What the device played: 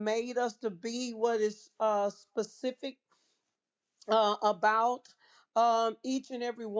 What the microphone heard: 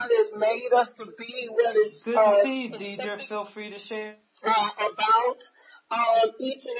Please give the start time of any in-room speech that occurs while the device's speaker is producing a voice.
2 s

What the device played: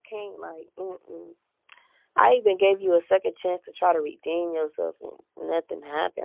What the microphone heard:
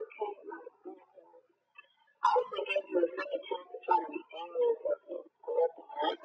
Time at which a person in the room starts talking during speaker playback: none

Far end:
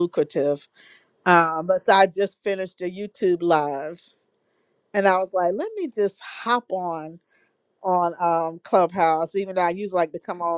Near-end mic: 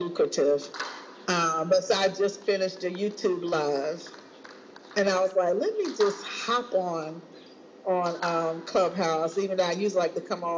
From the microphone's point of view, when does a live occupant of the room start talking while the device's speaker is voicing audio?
none

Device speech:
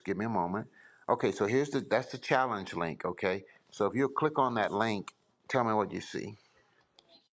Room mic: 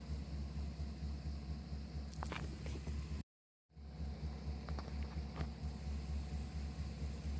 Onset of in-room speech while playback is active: none

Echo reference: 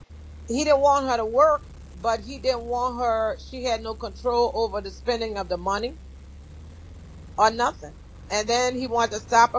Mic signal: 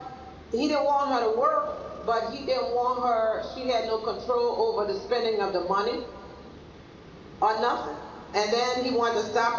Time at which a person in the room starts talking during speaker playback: none

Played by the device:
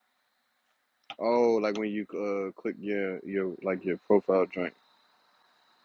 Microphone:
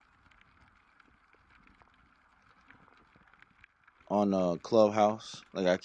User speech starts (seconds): 4 s

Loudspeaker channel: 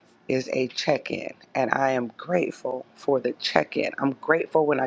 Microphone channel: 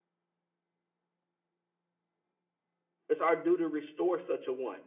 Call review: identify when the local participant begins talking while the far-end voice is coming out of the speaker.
3 s

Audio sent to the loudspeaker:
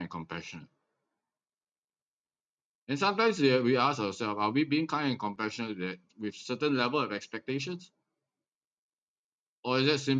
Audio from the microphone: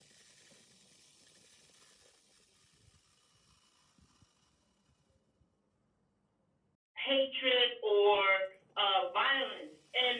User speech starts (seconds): 7 s

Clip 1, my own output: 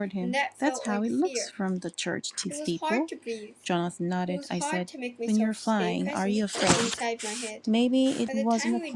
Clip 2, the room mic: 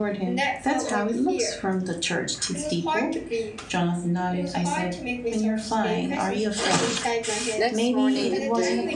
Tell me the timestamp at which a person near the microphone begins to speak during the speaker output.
8 s

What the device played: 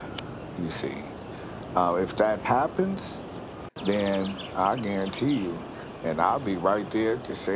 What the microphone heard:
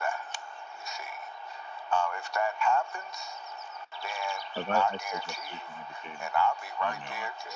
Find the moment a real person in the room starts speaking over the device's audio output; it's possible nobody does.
5 s

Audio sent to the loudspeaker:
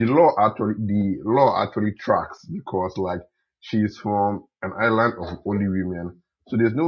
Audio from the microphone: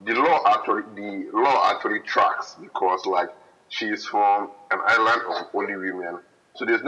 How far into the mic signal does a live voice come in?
none

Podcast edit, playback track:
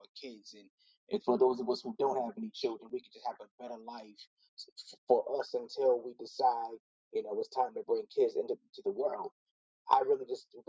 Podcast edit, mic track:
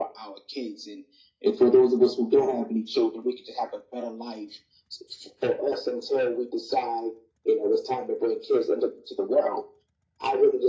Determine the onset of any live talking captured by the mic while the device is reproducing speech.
none

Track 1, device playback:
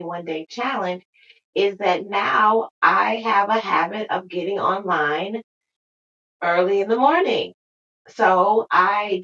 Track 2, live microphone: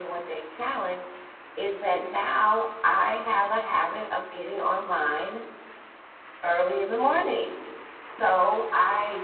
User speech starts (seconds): none

